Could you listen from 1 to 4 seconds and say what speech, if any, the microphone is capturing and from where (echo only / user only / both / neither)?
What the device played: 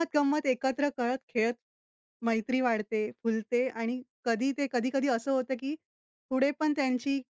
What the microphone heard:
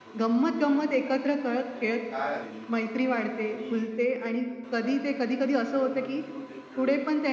both